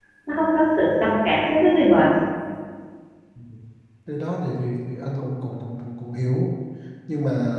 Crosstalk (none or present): none